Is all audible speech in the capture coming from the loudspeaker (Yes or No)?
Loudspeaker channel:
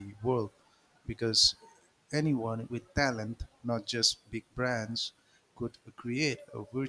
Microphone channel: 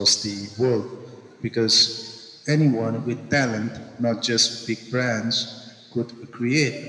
Yes